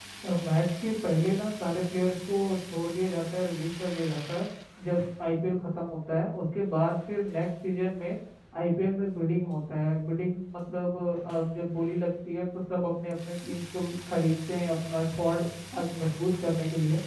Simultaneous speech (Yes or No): No